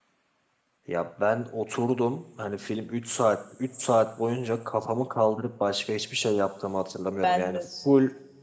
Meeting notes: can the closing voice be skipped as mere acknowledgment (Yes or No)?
Yes